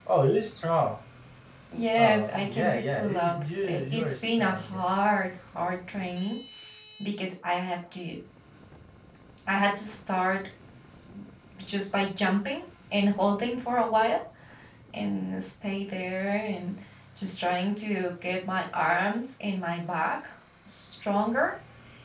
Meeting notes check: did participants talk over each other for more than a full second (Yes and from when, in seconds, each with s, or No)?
Yes, from 2.0 s